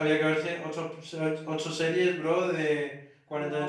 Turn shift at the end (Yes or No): Yes